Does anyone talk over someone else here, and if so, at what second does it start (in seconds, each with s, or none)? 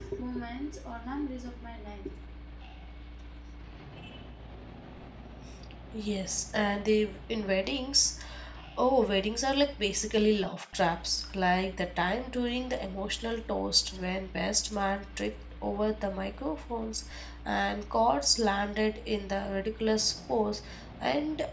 none